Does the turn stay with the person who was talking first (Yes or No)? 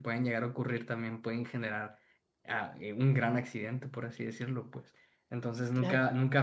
Yes